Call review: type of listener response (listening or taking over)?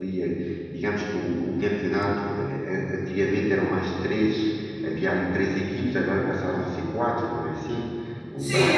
taking over